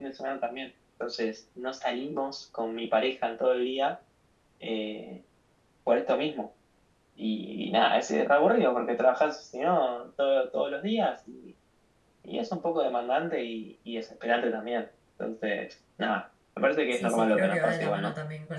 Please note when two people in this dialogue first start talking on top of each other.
17 s

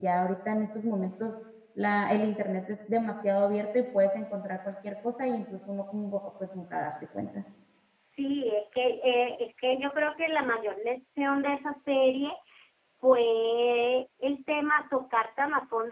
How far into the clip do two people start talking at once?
none

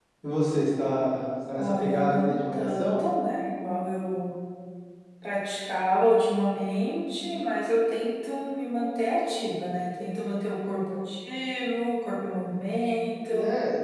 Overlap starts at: 2 s

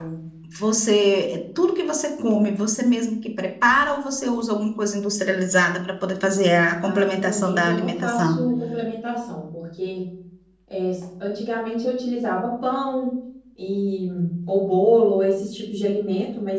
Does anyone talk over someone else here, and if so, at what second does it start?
7 s

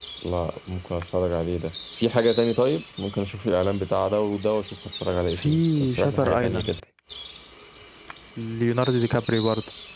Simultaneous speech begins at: 5 s

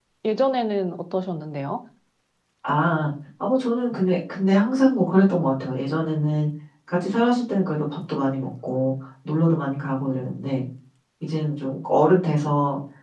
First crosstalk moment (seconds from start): none

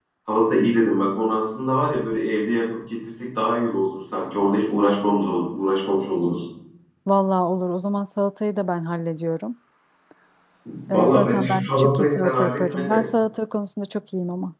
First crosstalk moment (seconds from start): 11 s

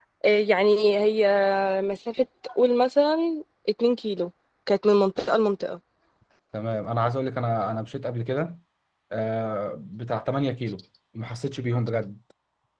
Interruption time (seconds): none

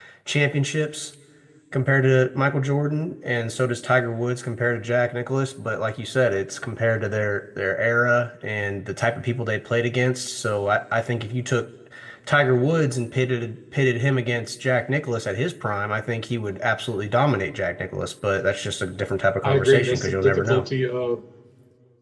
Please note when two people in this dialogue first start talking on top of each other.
19 s

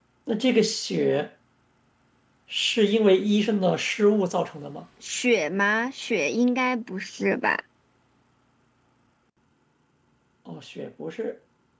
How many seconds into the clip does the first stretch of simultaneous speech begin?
none

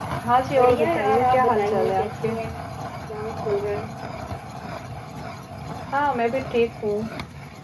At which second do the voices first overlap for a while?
1 s

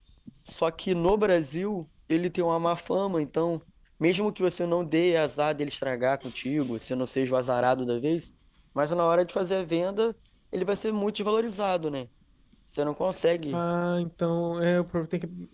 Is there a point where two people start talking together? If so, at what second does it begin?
none

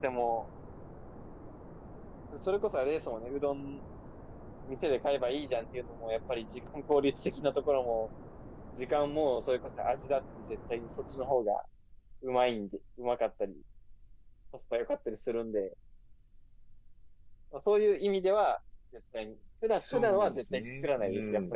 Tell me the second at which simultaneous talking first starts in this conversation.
20 s

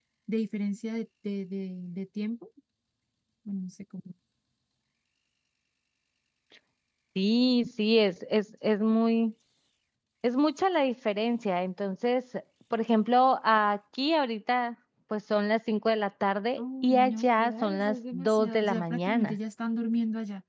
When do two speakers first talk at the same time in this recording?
17 s

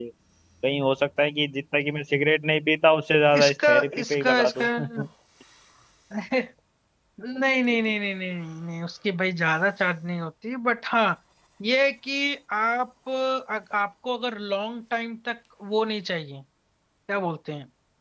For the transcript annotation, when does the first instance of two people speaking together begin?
3 s

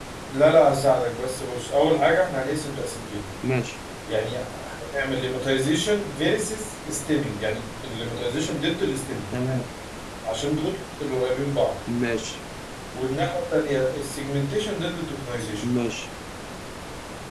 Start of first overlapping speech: none

